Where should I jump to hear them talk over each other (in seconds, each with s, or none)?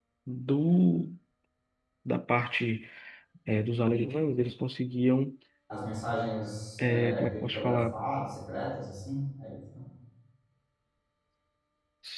6.8 s